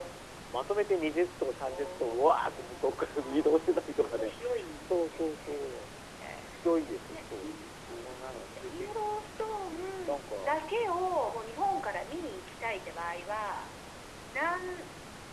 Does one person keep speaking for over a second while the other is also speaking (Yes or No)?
Yes